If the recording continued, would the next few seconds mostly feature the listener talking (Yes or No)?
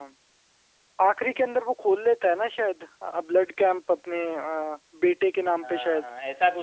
Yes